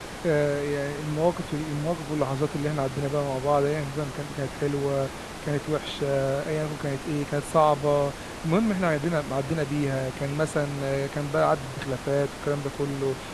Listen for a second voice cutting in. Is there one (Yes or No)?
No